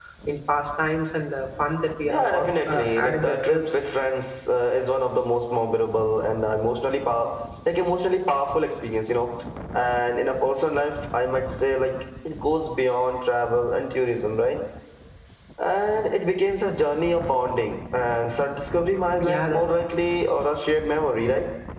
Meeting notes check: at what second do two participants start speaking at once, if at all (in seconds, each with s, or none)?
2.1 s